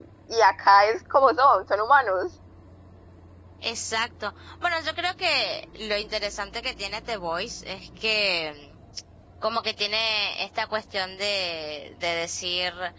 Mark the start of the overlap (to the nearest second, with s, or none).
none